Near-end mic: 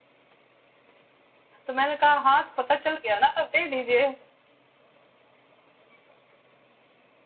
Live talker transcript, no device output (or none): तो मैंने कहा हाँ तो पता चल गया ना तब दे दीजिए